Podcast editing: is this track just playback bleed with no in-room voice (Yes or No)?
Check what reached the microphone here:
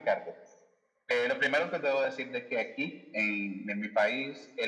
Yes